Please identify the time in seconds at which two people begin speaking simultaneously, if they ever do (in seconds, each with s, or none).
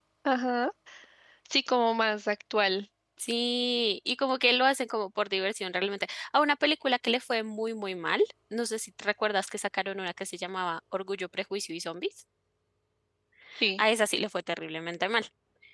none